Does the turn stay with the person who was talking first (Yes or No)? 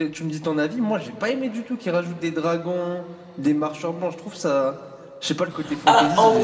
No